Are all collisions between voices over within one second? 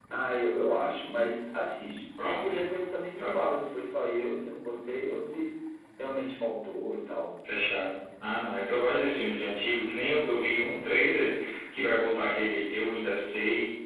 Yes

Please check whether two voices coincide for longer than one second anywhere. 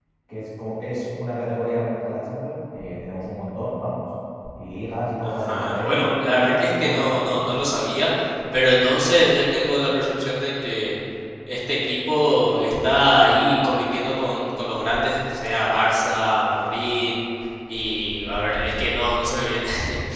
Yes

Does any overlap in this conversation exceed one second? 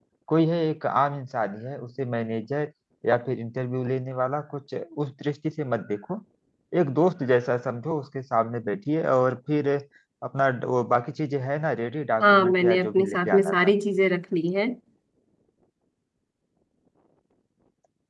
Yes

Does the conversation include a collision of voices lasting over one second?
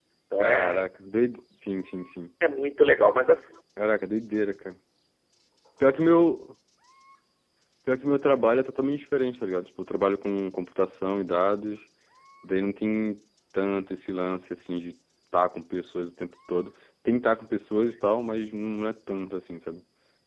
No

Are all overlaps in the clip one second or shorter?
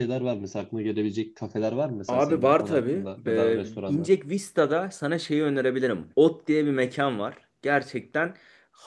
No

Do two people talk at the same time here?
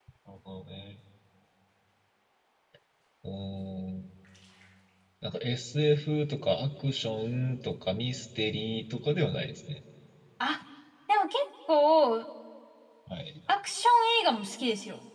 No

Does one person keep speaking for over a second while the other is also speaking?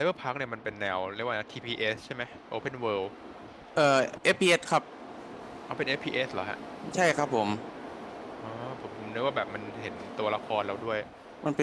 No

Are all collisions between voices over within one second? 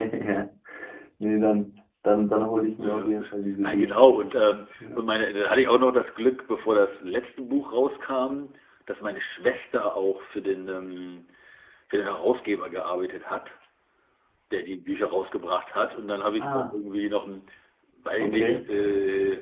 Yes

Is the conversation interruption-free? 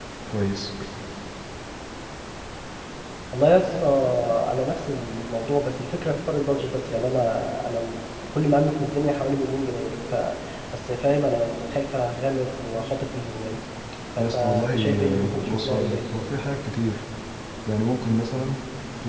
No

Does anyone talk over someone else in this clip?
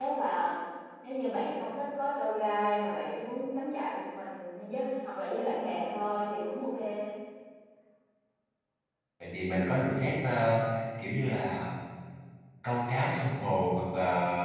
No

